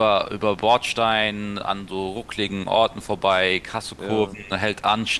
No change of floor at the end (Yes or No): Yes